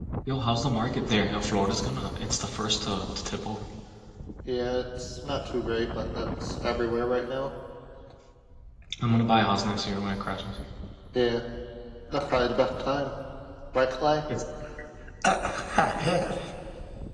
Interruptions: none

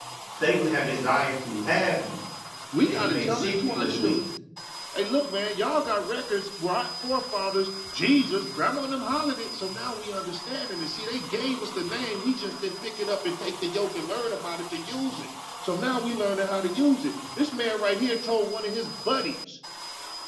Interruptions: present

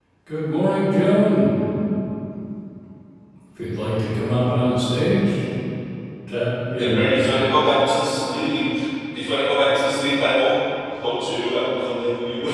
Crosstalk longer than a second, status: none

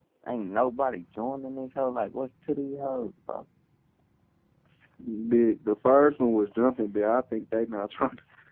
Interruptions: none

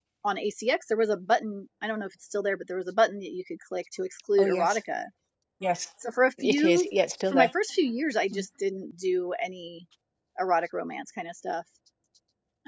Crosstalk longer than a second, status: none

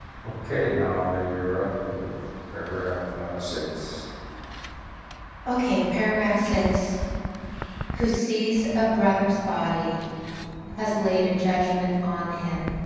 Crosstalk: none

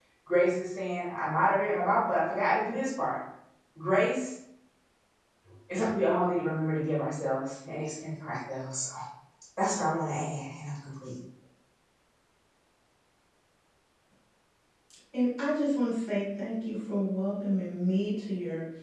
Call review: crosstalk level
none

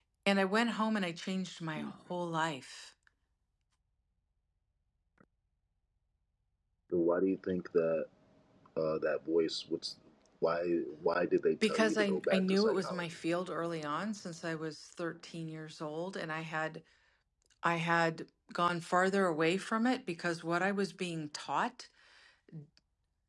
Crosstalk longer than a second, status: present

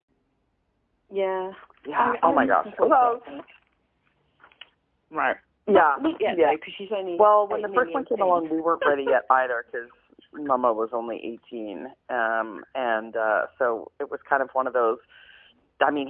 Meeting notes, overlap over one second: present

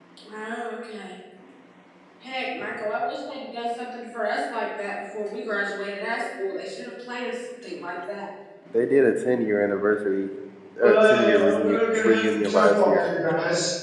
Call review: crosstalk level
present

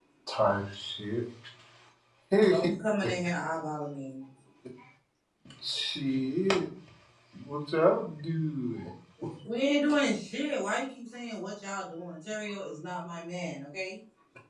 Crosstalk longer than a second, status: none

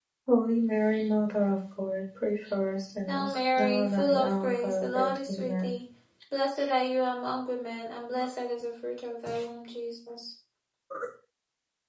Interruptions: present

